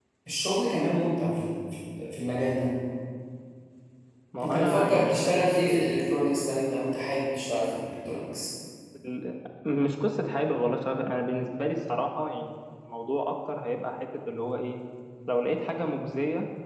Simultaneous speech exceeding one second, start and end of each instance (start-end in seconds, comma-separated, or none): 4.4-5.8